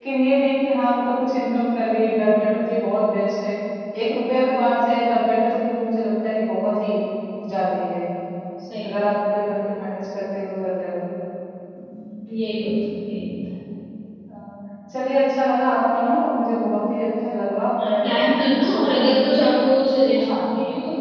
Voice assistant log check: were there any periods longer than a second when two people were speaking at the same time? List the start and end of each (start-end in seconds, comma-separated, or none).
17.9-19.4